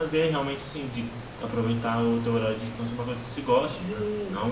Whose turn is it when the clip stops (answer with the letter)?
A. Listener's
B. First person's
A